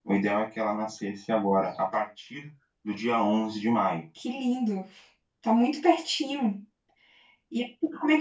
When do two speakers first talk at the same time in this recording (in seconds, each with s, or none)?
none